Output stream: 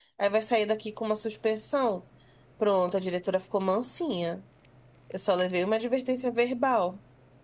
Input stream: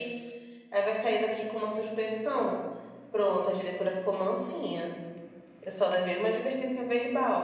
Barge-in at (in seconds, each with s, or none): none